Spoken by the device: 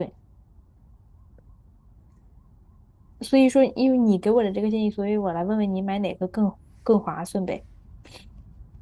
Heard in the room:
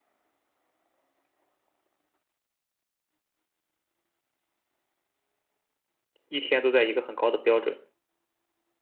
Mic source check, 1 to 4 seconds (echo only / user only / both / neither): neither